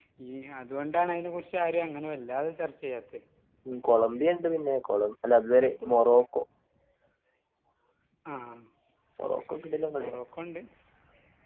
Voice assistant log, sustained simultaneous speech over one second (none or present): none